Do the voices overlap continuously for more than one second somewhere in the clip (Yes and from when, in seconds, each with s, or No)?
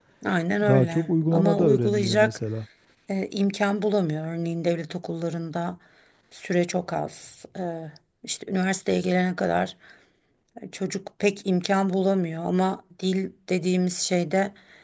Yes, from 0.7 s